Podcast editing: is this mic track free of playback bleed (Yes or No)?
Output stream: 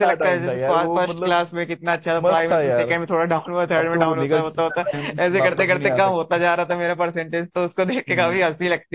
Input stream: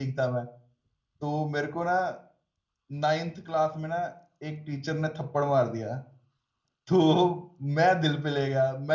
Yes